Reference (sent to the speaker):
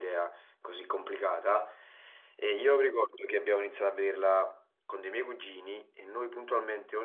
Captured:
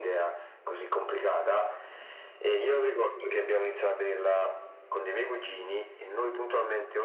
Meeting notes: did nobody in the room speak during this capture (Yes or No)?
Yes